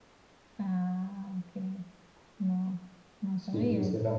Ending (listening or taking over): taking over